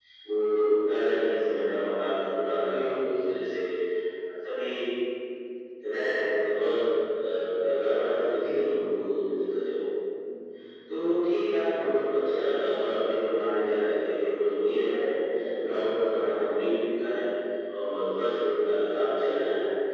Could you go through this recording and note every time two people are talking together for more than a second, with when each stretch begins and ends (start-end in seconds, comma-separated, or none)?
none